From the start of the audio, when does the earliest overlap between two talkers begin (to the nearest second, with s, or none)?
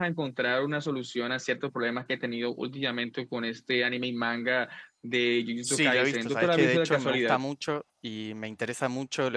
6 s